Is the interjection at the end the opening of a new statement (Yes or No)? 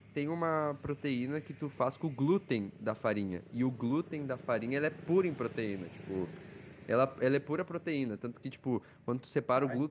No